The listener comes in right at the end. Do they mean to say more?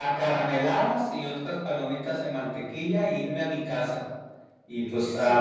No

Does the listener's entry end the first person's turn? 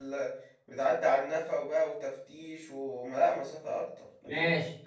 Yes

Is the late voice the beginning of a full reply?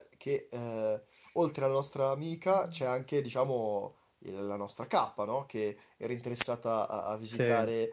No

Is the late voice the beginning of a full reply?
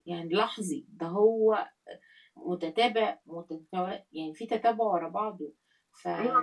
Yes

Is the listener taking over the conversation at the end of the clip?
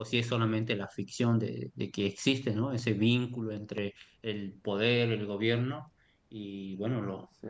No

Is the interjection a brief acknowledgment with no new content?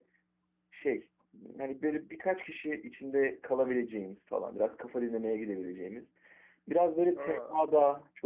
Yes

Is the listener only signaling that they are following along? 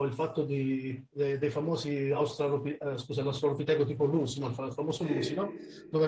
Yes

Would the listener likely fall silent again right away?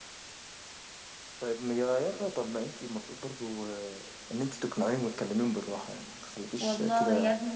No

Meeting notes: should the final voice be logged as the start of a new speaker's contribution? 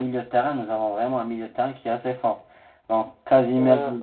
No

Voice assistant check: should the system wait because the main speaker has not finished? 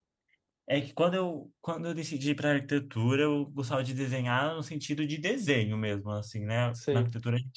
Yes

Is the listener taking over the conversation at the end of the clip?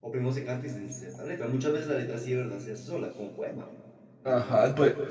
Yes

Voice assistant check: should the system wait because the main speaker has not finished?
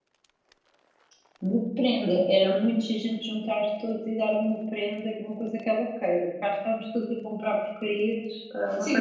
No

